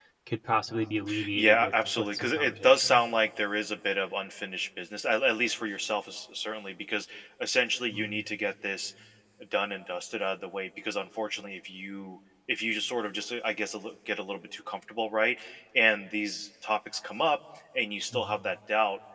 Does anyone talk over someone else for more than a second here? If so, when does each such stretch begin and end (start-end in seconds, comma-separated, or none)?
1.3-3.0